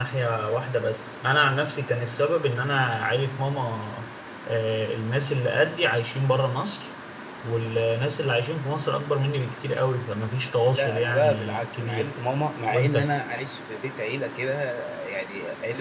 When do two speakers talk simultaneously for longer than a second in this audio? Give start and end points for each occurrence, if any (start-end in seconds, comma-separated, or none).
10.7-12.1